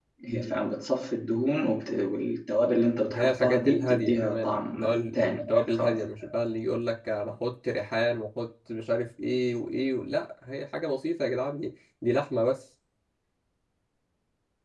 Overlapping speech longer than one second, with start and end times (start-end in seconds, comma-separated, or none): 3.1-6.0